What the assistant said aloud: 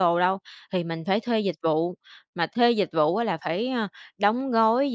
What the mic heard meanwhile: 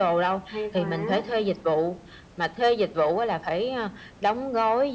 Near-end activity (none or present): present